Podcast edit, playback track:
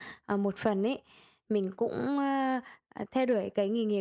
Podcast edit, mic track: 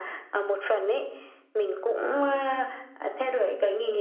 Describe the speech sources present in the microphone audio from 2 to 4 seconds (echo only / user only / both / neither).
echo only